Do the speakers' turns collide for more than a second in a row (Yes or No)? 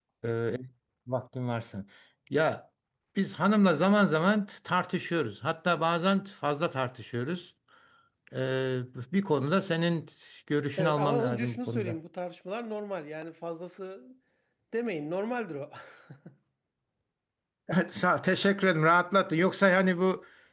Yes